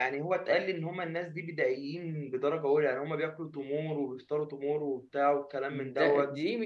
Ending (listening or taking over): taking over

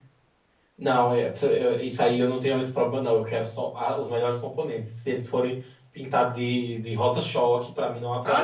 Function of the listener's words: taking over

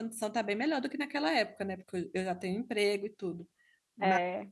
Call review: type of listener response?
listening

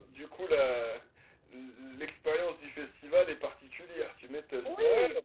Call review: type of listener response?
taking over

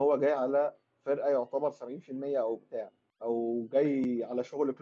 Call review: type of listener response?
listening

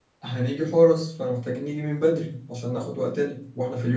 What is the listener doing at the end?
listening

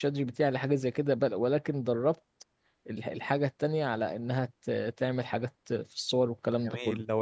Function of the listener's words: taking over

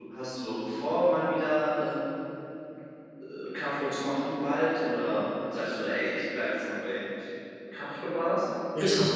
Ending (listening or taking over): taking over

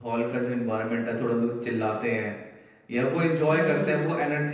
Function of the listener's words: listening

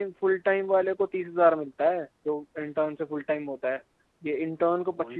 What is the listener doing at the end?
taking over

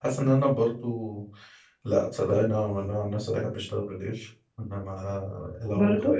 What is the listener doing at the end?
listening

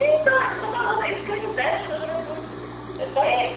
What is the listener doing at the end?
taking over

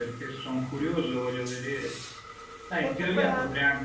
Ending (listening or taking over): listening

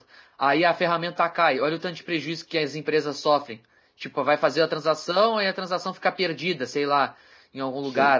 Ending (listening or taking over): listening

